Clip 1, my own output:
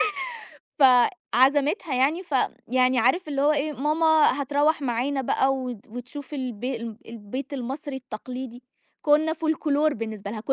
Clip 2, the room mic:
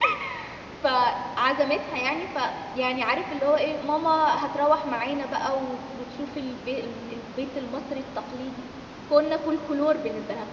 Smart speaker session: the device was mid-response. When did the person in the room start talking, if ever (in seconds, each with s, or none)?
none